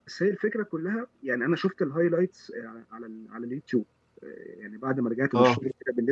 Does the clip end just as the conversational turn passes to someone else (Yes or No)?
No